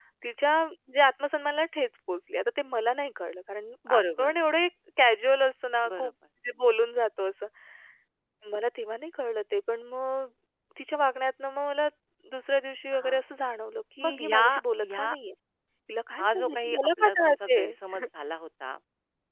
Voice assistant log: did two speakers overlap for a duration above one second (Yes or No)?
Yes